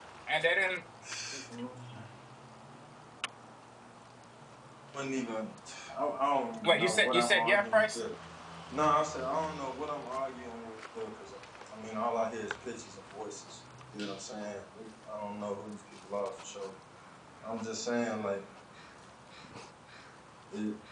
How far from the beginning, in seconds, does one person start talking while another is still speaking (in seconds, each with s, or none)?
6.6 s